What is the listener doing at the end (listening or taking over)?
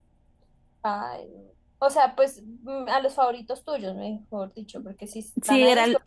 taking over